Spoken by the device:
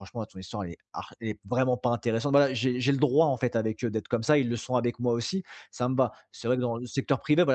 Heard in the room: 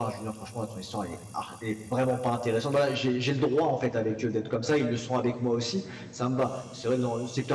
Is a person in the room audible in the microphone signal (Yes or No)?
No